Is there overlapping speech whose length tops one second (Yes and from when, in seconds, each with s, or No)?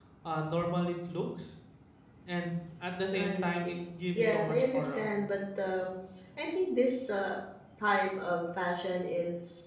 Yes, from 3.1 s